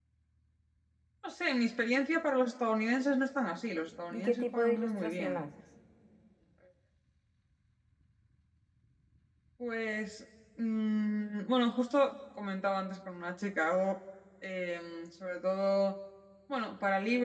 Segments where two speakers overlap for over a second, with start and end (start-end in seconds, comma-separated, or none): 4.1-5.4